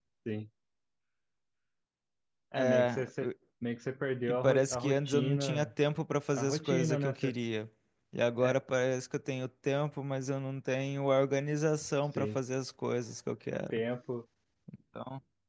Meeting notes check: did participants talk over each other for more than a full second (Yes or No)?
Yes